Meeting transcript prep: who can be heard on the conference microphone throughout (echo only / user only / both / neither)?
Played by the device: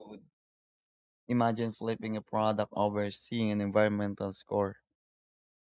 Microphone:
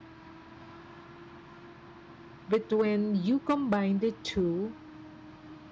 user only